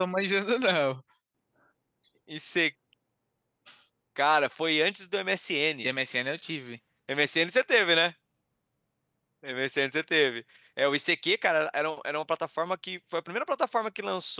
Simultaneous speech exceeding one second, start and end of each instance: none

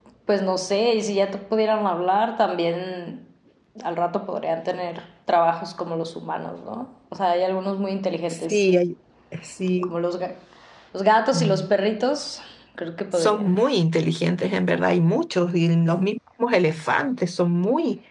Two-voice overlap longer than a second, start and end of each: none

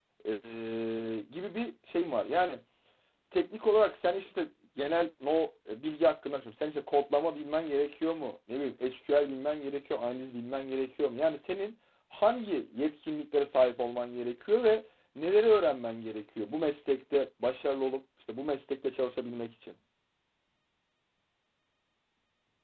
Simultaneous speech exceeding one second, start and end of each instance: none

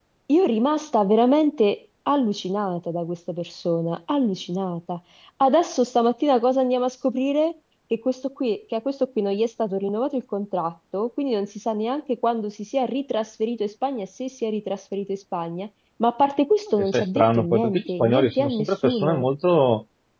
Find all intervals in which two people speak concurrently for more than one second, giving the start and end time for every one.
16.8-19.3

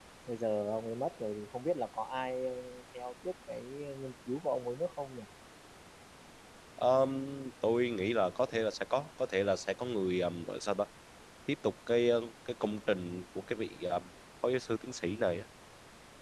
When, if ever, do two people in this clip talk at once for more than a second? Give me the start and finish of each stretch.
none

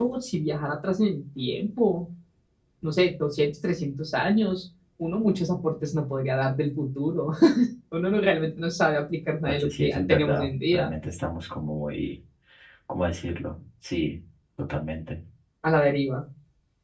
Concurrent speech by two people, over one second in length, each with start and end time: 9.5-10.9

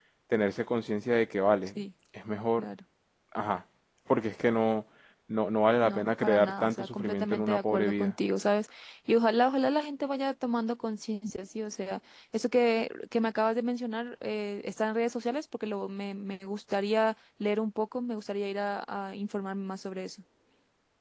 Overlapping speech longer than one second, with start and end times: 5.8-8.1

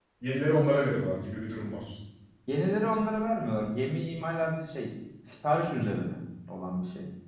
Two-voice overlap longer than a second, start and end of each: none

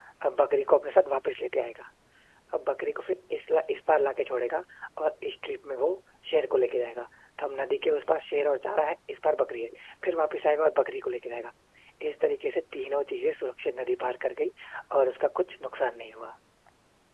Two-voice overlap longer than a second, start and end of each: none

